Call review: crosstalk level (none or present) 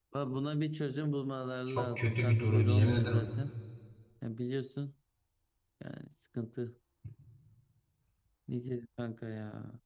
present